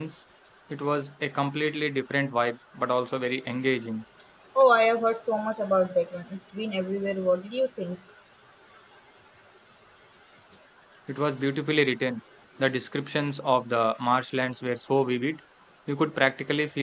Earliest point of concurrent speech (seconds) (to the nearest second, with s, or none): none